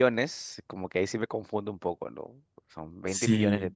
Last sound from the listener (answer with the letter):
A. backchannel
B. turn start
A